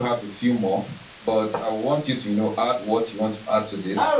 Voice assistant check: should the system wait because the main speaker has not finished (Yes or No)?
No